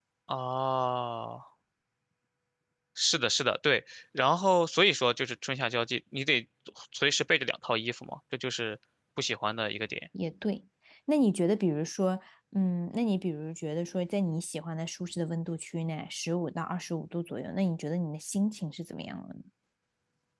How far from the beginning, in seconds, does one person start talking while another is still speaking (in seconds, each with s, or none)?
none